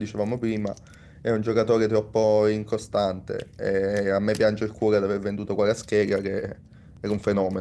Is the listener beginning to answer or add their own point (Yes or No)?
No